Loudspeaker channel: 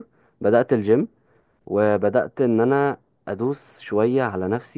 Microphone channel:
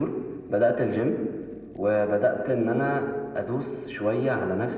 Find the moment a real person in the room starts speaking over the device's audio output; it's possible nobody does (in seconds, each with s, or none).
none